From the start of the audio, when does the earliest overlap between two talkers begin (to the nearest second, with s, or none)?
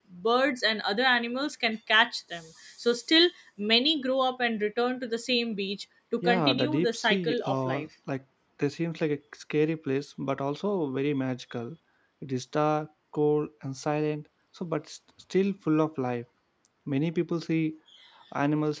6 s